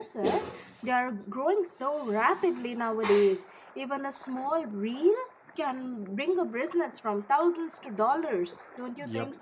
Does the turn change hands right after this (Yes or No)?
Yes